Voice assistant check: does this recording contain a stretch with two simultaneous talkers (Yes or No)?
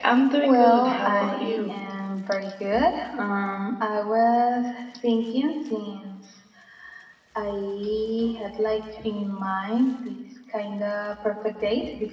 Yes